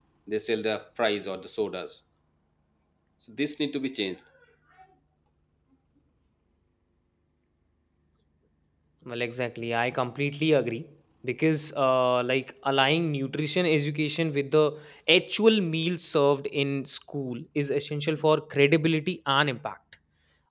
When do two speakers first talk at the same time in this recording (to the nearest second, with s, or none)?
none